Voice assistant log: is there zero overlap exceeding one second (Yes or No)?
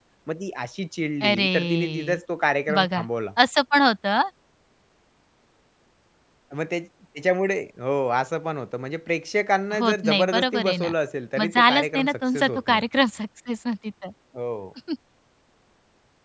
No